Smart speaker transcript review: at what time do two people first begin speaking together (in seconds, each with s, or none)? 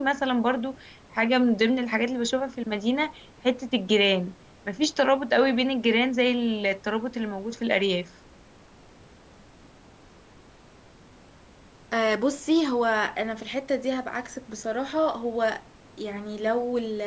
none